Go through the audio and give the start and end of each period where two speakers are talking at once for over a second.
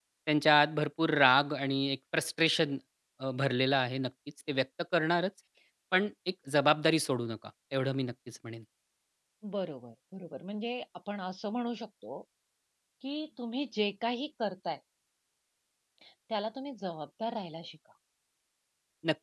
none

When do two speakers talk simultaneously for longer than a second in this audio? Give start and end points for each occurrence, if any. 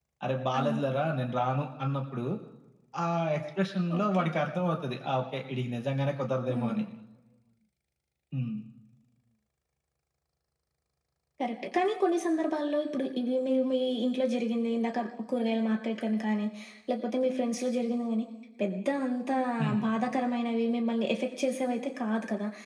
none

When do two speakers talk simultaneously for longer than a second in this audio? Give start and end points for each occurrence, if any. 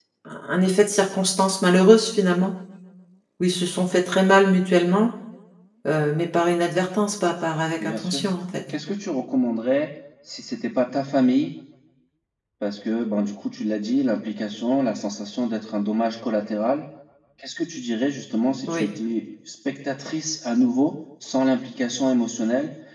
none

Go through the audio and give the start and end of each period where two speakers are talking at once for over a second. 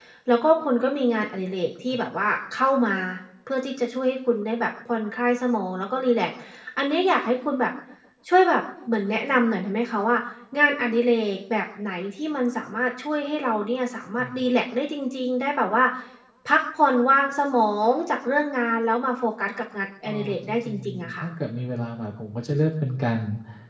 20.0-21.2

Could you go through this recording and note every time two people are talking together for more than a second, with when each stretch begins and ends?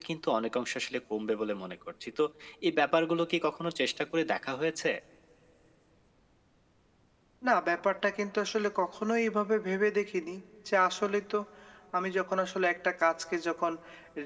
none

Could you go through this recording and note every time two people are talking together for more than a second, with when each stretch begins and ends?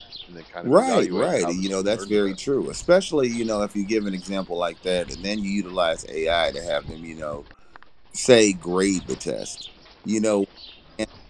0.6-2.3

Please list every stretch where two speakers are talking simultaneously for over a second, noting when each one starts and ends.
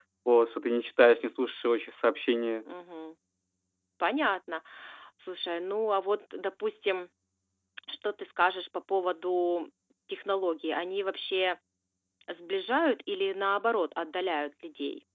none

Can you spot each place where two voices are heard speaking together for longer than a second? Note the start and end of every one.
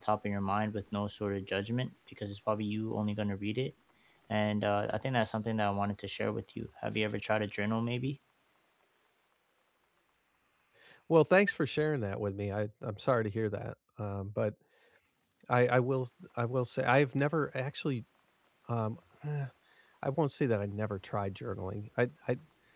none

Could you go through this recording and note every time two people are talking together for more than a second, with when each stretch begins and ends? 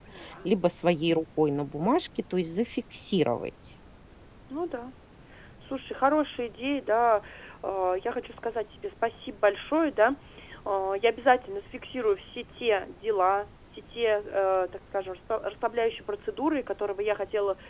none

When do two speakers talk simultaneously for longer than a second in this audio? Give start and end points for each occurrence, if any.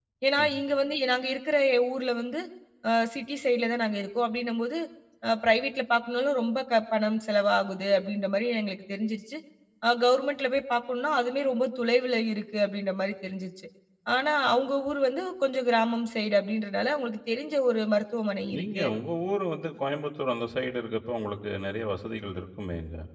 none

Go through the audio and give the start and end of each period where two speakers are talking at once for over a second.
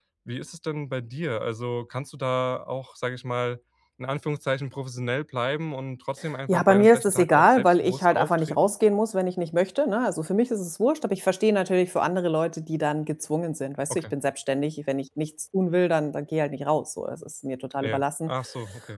6.5-8.7

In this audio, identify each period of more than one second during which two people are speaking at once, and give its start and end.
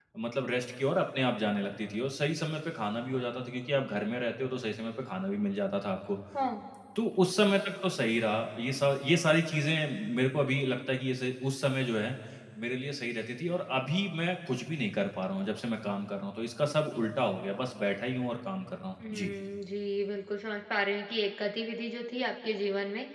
none

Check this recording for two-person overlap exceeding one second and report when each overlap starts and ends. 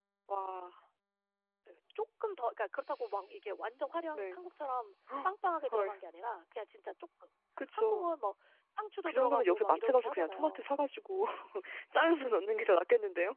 9.1-10.7

